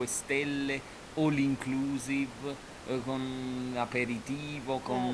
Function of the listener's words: listening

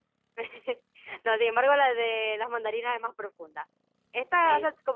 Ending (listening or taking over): listening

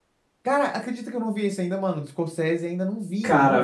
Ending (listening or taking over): taking over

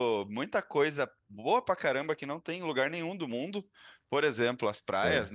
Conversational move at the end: listening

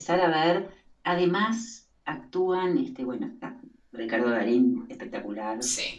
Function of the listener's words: listening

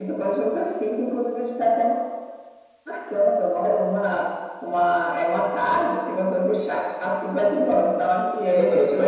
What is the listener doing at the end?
taking over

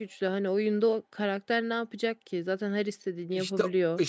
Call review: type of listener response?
taking over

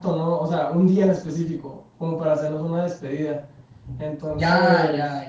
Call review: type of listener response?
taking over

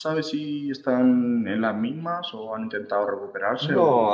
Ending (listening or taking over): taking over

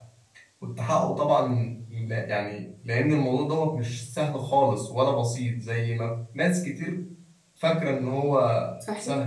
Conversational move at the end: taking over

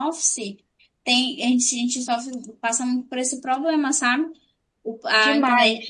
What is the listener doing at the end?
listening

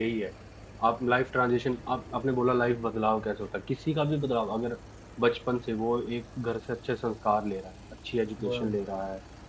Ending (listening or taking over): listening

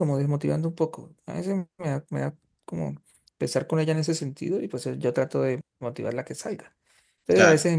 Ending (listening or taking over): listening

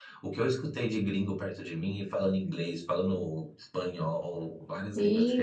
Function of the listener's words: taking over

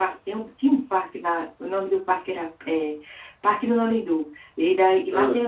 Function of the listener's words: listening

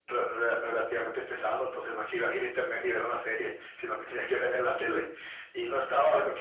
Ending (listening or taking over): listening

